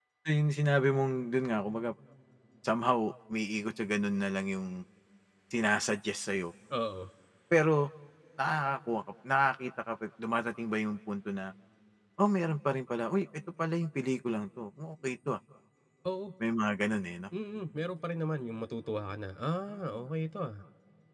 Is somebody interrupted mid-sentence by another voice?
No

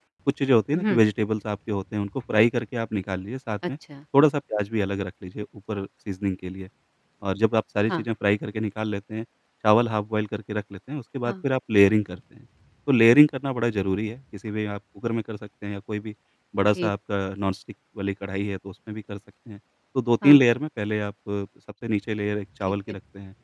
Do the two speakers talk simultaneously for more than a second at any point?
No

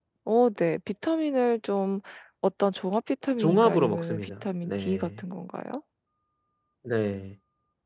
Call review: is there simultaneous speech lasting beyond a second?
Yes, from 3.4 s

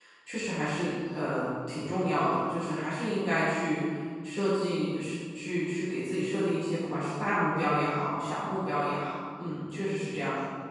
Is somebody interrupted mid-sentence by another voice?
No

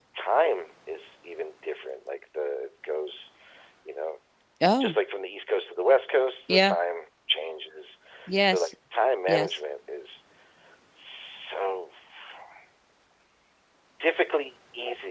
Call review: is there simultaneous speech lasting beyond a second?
No

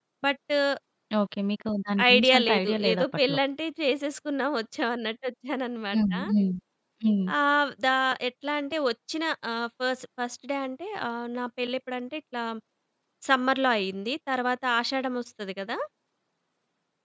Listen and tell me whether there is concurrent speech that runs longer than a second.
Yes, from 2.1 s

